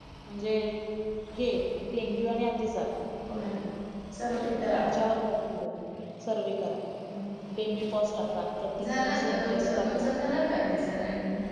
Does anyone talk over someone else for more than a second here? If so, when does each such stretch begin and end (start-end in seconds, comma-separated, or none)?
8.8-10.1